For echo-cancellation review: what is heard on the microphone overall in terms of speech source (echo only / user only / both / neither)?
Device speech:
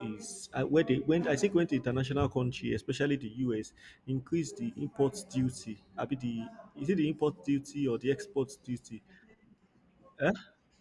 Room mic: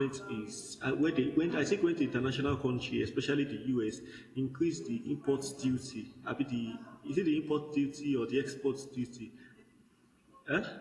echo only